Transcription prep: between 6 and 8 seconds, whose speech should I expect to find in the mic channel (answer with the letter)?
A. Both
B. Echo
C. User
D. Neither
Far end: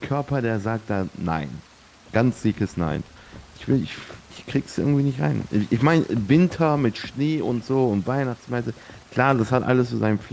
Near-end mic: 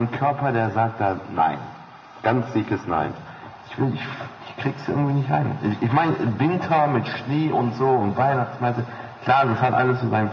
B